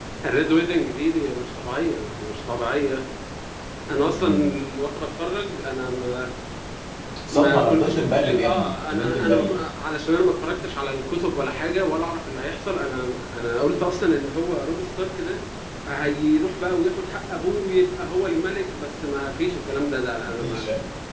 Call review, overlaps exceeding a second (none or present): present